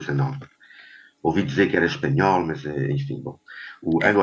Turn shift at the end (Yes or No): No